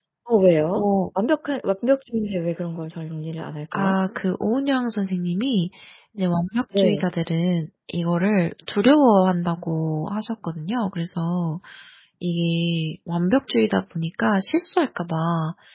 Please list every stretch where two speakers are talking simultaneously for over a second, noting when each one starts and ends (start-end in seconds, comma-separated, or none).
none